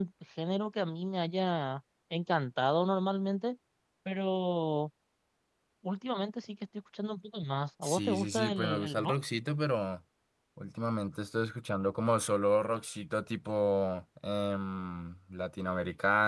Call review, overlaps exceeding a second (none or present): present